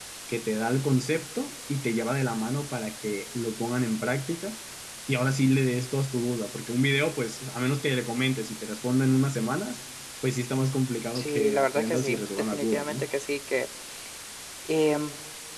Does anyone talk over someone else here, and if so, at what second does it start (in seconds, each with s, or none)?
11.2 s